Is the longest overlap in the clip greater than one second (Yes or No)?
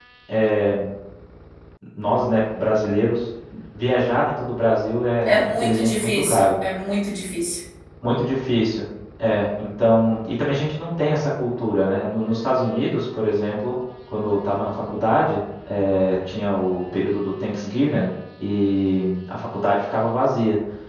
Yes